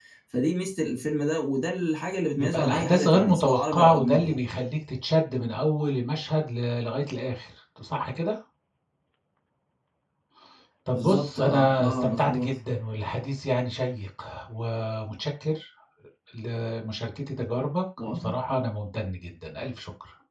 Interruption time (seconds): 2 s

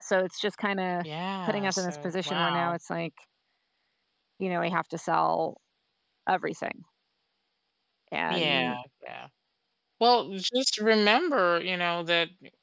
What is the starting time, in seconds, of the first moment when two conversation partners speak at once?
1 s

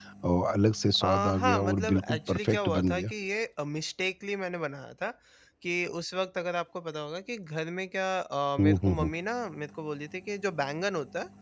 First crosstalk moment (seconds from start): 1 s

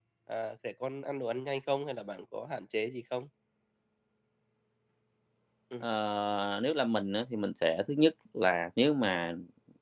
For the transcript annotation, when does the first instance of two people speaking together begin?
none

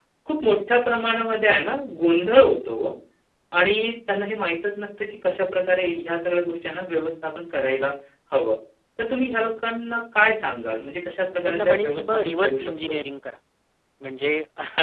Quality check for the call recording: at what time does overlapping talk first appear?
11 s

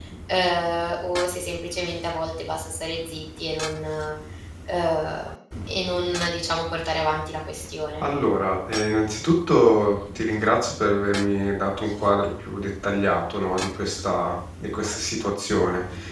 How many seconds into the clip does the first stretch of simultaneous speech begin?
none

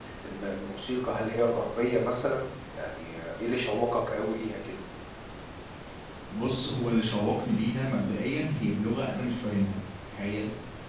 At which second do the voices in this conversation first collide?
none

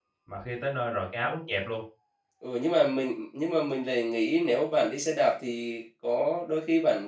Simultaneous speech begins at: none

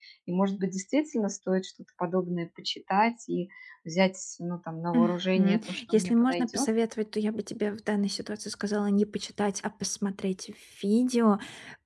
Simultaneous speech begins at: 5 s

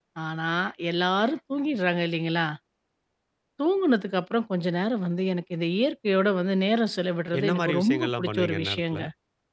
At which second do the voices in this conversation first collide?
7 s

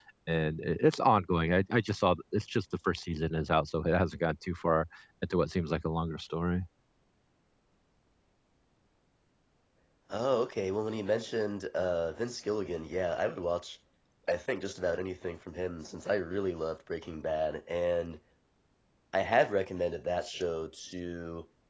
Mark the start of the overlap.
none

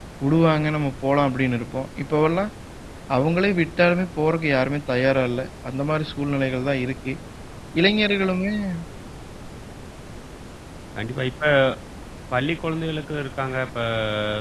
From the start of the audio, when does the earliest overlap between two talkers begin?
none

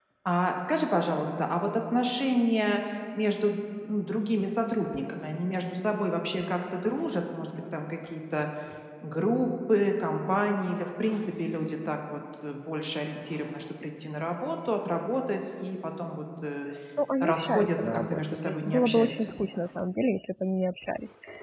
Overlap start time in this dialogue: 17 s

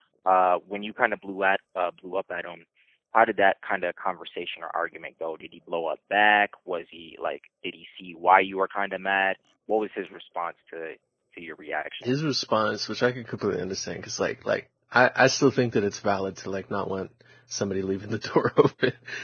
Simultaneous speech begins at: none

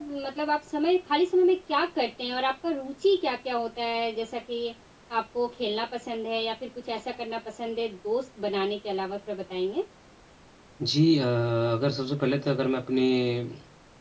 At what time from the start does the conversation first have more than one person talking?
none

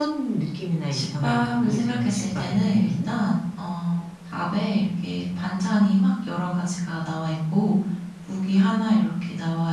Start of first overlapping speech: 1 s

